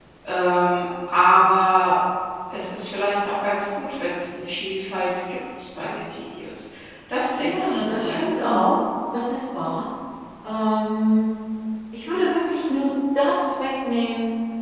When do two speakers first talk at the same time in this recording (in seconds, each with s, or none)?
7.3 s